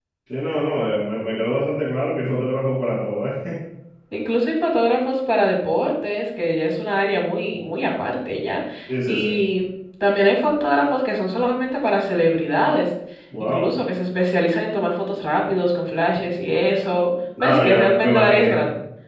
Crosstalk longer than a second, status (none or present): present